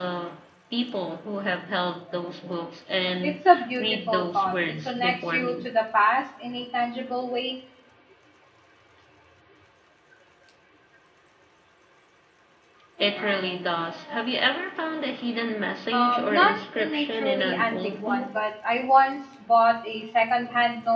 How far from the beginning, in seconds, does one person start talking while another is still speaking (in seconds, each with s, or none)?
3.2 s